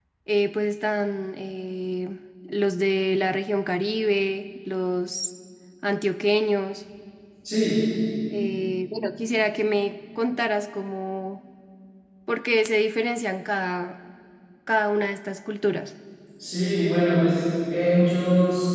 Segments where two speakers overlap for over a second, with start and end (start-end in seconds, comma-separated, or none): none